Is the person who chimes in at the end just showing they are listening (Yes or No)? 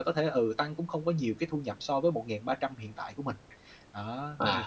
No